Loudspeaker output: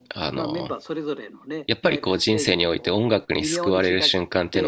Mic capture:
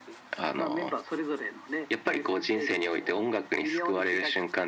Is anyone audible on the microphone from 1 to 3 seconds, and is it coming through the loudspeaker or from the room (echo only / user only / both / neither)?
echo only